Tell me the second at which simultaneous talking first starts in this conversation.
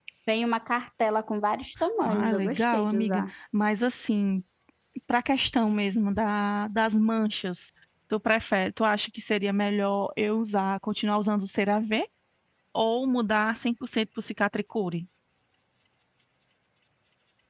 1.8 s

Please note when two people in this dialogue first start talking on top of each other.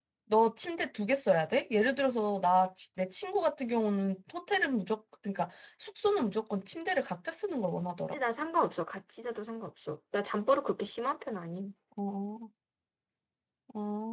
none

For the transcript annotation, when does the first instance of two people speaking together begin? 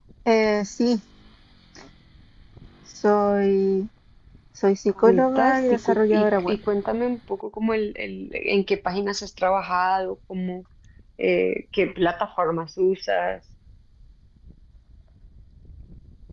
5.0 s

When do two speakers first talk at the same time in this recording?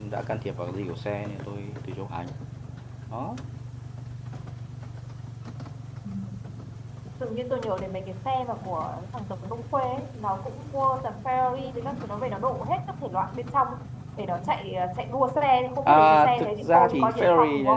15.8 s

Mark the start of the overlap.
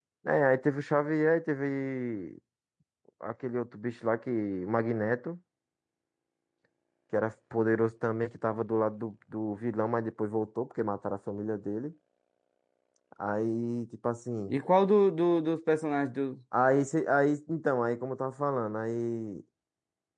none

